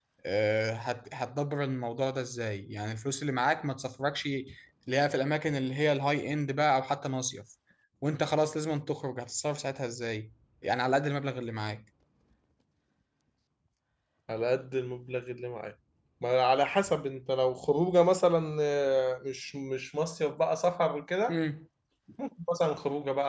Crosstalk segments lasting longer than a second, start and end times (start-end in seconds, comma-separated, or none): none